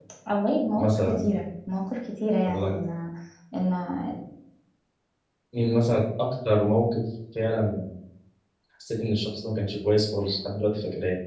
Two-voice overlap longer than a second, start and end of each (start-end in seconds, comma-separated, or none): none